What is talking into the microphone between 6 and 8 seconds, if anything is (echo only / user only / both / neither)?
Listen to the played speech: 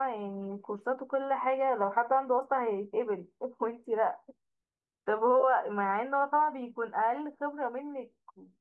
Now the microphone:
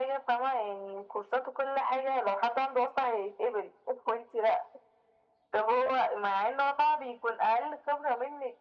echo only